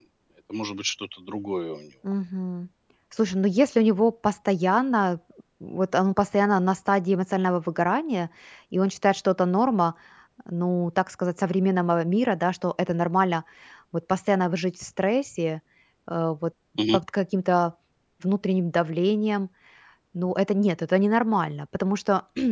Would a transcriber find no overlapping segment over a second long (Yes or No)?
Yes